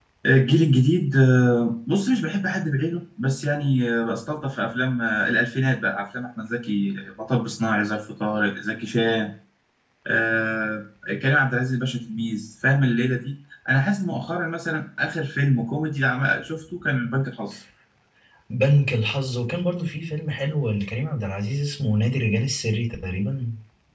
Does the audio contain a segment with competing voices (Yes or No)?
No